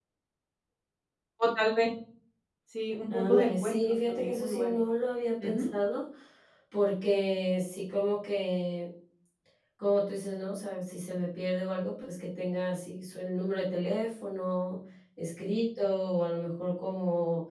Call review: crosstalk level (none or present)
present